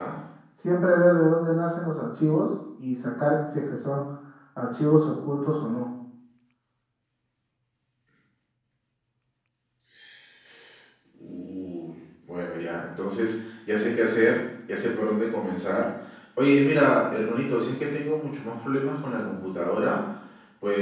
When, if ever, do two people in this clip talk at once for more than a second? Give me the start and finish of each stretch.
none

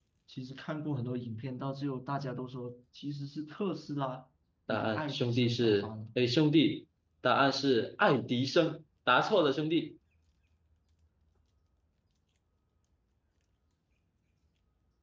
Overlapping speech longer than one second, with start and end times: 4.7-5.9

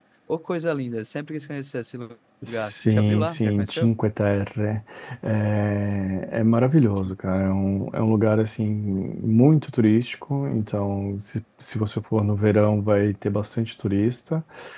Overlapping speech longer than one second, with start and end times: 2.5-3.9

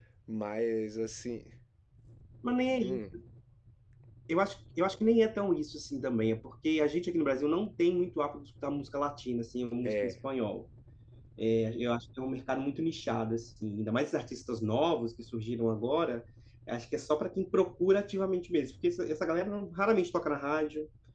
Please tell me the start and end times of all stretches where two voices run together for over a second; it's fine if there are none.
none

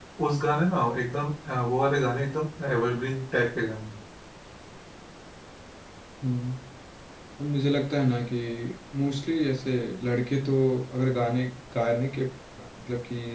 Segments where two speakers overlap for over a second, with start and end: none

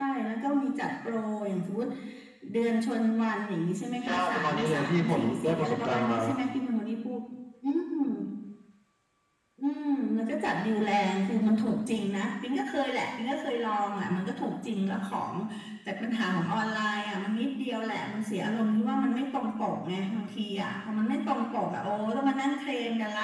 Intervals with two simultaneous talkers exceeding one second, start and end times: 4.0-6.2

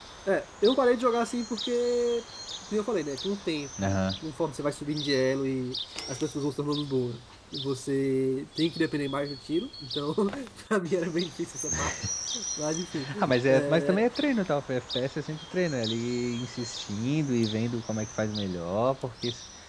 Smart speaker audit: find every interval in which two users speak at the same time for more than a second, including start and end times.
none

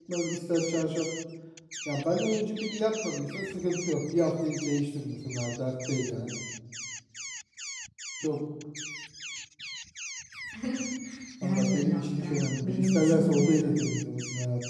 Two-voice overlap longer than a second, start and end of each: 11.4-13.8

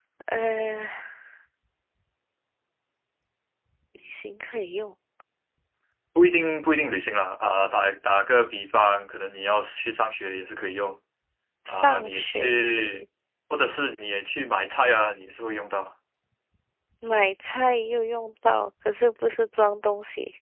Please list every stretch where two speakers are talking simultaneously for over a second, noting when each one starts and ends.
11.7-13.0

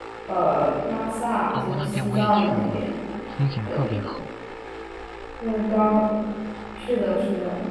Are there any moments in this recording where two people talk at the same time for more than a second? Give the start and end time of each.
1.5-2.9

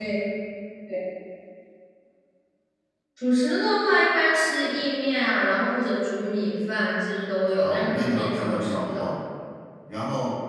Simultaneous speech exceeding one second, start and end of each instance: 7.6-9.2

